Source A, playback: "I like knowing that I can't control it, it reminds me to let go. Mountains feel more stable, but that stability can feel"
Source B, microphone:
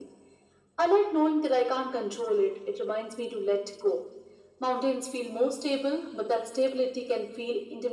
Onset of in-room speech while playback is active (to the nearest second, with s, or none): none